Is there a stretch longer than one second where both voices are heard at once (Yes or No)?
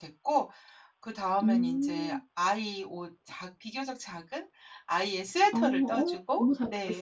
Yes